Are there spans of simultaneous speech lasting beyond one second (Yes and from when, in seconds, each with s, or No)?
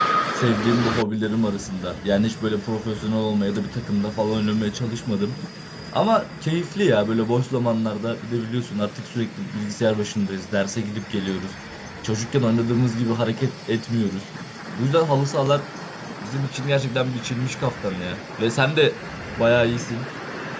No